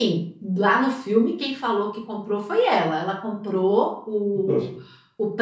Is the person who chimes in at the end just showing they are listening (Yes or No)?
Yes